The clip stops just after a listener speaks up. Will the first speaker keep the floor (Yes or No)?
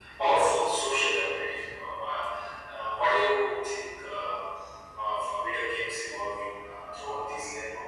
No